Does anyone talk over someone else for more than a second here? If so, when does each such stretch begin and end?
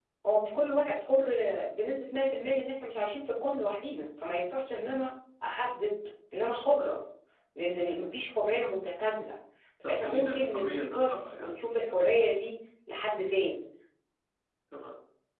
9.8-11.5

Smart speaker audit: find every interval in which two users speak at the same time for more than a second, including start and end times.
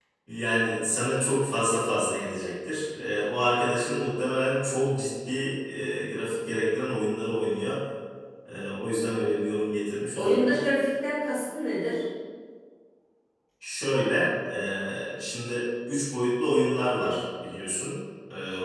none

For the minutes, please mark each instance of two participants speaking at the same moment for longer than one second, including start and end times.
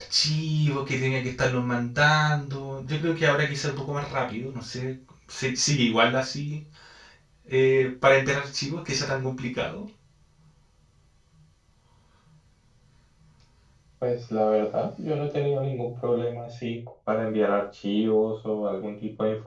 none

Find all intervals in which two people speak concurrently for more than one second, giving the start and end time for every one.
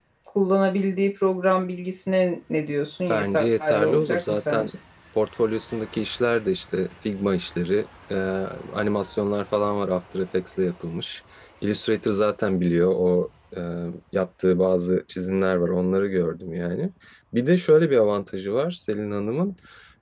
3.1-4.7

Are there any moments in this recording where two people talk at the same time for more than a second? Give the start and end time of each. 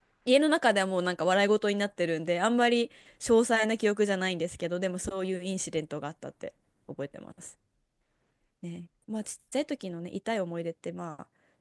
none

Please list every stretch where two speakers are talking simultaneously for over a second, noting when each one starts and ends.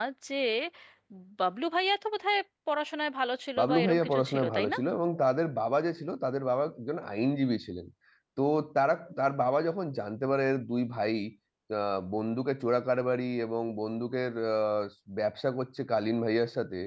3.6-4.8

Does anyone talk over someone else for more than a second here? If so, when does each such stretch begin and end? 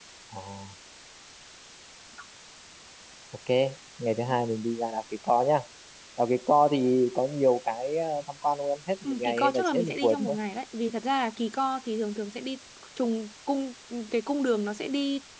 9.0-10.3

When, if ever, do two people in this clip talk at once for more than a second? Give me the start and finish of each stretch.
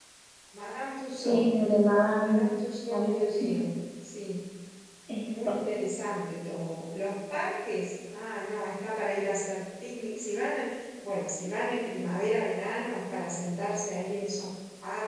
none

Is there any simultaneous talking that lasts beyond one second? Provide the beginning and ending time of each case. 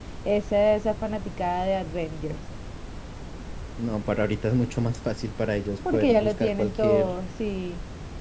5.9-7.1

